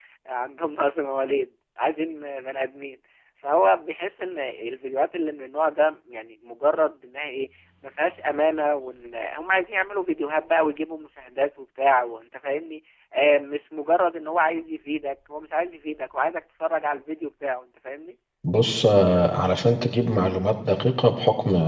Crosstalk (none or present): none